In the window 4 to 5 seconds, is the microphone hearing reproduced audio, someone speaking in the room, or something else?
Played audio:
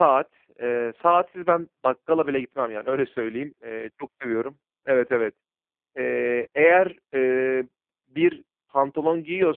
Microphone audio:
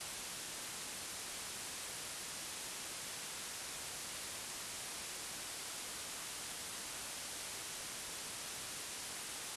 neither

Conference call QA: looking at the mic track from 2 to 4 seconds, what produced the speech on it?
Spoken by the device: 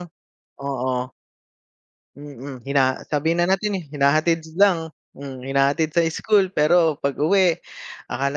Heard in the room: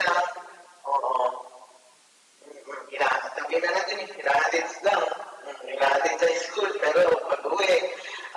echo only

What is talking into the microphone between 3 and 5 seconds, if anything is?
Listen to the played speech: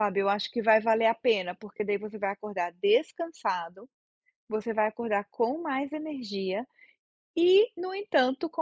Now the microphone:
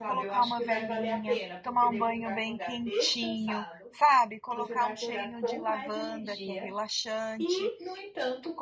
both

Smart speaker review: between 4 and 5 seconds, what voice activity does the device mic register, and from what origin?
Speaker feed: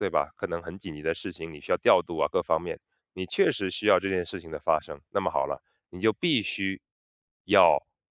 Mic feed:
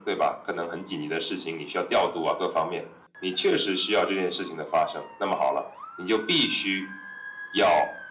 echo only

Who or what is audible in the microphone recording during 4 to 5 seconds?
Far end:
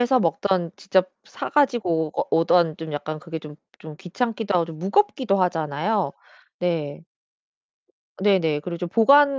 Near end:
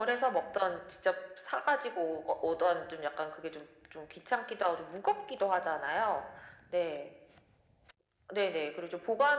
echo only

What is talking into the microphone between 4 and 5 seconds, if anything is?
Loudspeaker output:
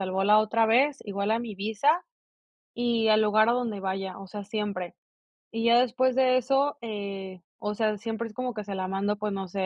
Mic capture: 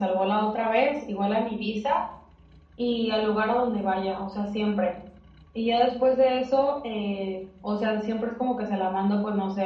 echo only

